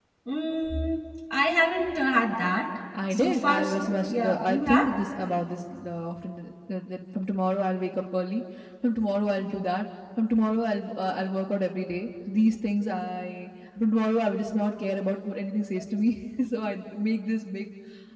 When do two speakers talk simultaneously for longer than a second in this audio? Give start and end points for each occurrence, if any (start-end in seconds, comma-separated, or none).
3.1-4.9